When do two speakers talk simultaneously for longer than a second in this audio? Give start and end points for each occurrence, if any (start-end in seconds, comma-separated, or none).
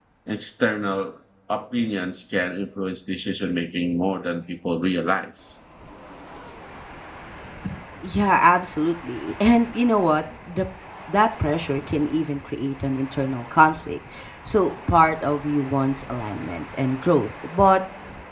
none